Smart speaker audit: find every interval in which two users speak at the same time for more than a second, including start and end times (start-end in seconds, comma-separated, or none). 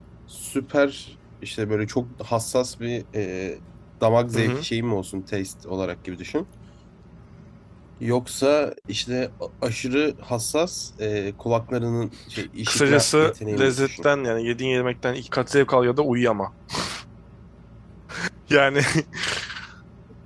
12.7-14.1